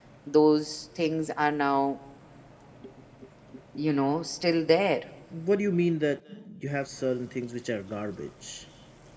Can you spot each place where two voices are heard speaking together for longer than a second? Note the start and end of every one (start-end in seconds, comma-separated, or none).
none